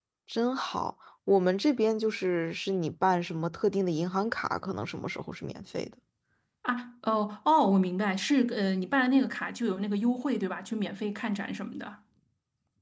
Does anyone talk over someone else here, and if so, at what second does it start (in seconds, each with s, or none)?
none